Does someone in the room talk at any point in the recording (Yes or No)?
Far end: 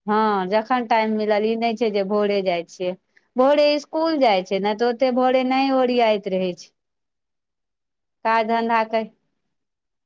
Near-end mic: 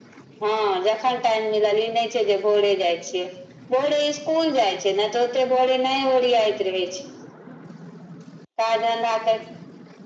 No